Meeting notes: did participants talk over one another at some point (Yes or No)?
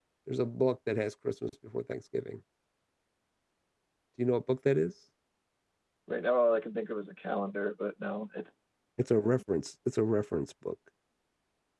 No